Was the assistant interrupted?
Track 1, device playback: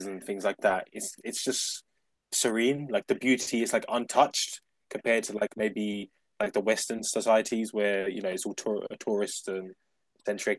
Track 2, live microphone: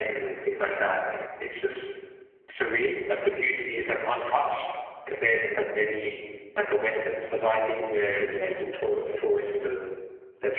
No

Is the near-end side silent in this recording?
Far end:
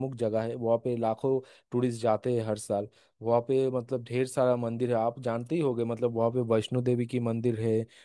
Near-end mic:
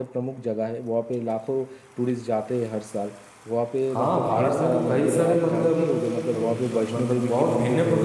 No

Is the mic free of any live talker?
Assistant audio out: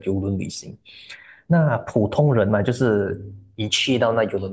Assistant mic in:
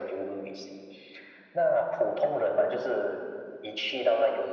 Yes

